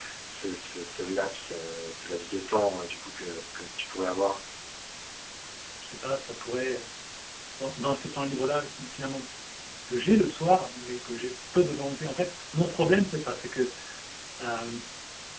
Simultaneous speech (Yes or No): No